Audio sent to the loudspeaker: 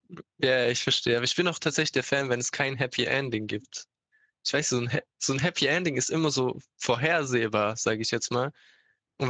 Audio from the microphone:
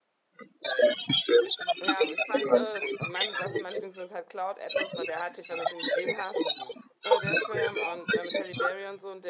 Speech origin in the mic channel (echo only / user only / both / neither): both